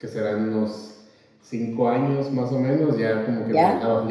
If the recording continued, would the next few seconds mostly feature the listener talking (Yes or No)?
No